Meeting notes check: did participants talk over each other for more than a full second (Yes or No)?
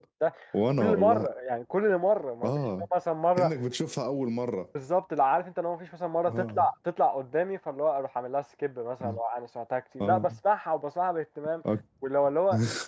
No